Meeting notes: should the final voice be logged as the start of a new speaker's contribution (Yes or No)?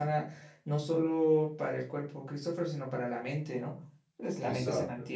No